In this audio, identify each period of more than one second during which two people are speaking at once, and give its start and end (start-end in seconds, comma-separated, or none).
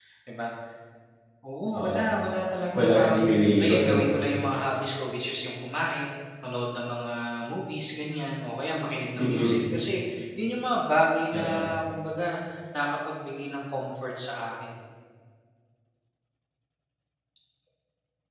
none